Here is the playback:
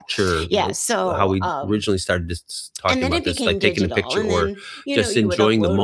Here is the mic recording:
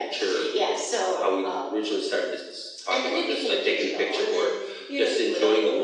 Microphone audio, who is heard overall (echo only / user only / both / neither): echo only